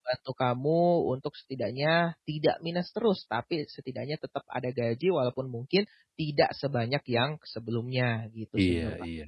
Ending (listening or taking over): taking over